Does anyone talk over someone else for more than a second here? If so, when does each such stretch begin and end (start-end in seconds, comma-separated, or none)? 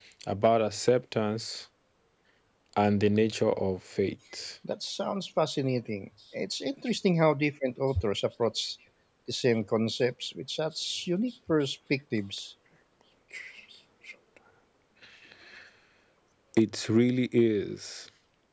none